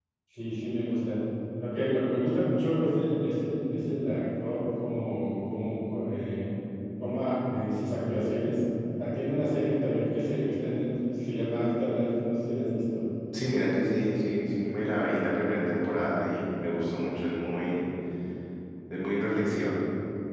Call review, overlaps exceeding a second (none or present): none